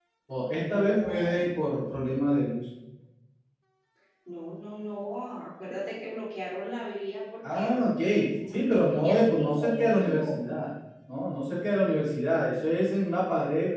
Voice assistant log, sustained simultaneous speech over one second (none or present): present